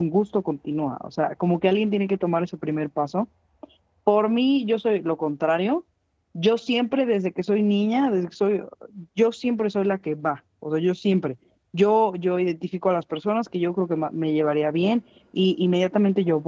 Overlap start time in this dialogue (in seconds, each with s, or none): none